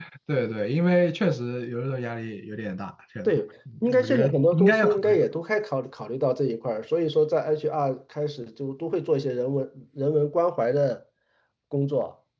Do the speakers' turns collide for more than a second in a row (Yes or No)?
Yes